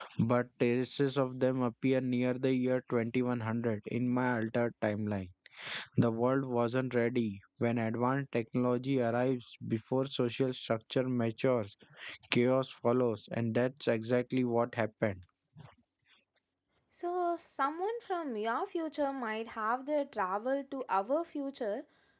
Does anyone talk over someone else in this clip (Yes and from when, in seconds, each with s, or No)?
No